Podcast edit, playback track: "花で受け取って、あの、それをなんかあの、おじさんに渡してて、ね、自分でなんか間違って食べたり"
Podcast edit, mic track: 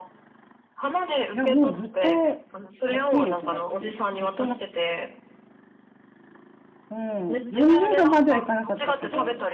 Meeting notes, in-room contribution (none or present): present